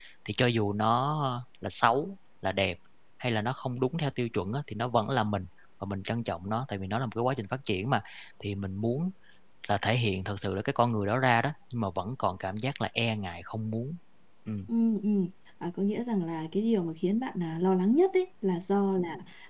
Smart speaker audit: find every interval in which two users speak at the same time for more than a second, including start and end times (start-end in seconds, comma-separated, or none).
none